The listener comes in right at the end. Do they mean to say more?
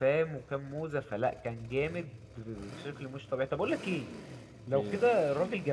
No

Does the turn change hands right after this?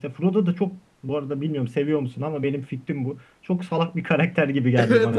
Yes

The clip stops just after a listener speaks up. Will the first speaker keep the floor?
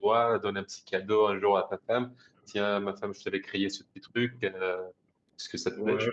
No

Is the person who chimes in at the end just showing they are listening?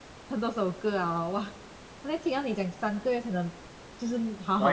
Yes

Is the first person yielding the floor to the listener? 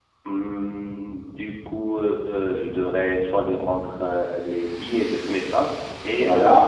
Yes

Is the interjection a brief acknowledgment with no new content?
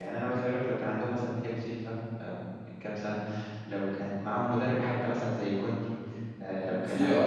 No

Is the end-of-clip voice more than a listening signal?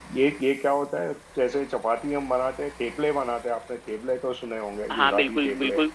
Yes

